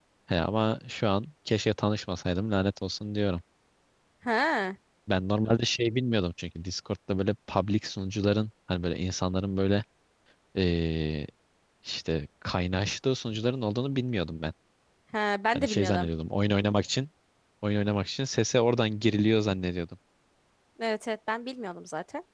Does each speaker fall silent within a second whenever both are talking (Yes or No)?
Yes